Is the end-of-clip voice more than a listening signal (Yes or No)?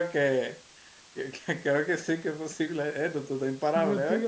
Yes